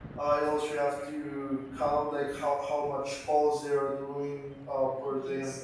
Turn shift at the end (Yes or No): No